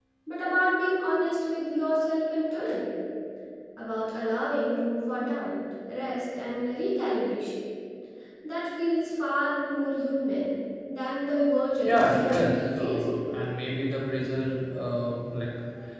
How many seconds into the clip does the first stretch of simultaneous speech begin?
11.8 s

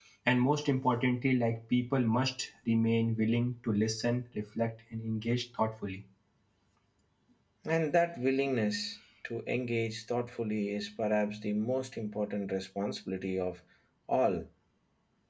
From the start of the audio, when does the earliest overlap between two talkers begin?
none

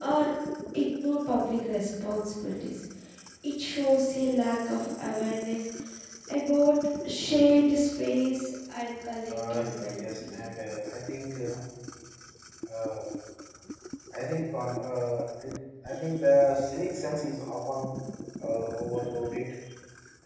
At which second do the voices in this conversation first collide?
9.0 s

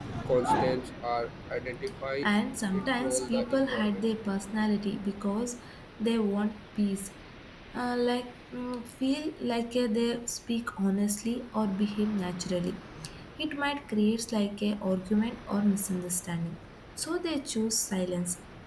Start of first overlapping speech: 2.7 s

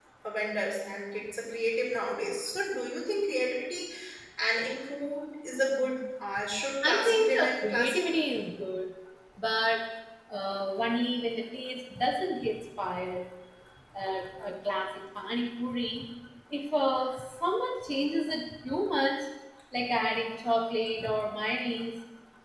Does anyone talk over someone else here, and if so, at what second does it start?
6.8 s

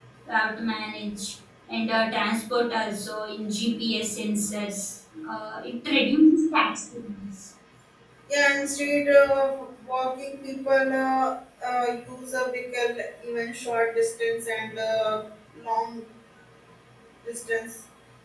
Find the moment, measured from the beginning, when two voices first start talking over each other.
none

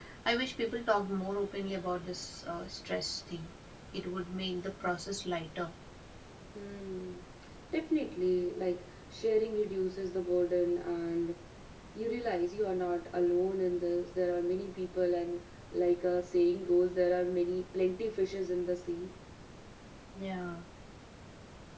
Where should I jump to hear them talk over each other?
none

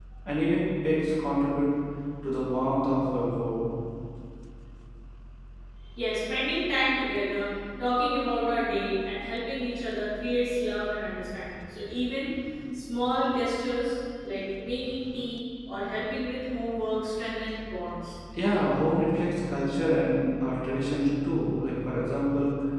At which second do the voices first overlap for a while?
none

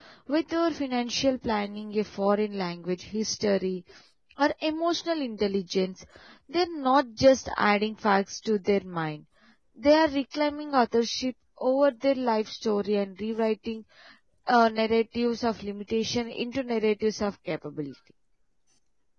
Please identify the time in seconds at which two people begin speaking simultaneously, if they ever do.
none

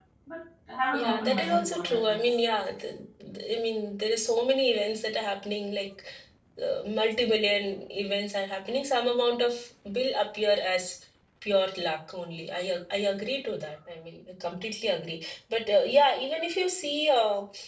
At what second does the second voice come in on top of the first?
0.9 s

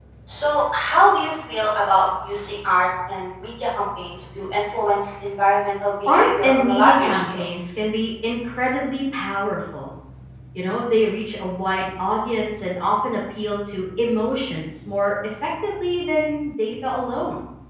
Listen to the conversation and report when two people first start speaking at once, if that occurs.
6.0 s

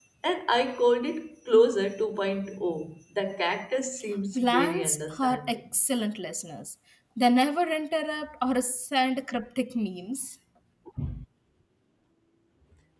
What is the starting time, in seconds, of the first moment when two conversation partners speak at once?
4.3 s

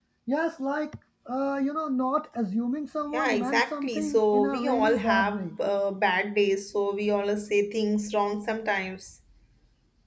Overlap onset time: 3.1 s

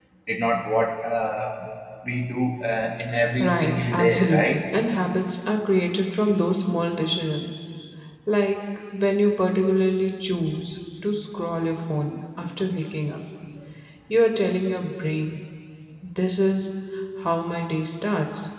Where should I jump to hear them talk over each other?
3.4 s

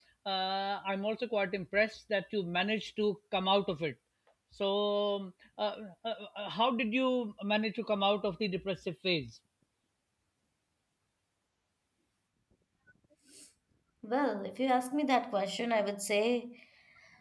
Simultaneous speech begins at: none

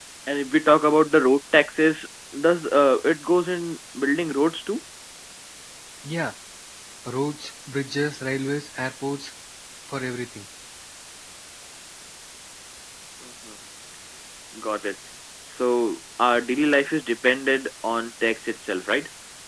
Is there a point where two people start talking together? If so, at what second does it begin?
none

